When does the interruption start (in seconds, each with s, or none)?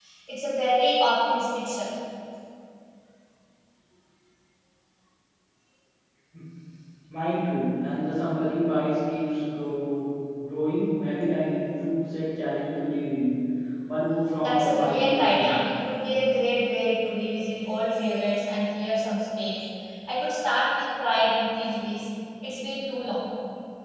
14.4 s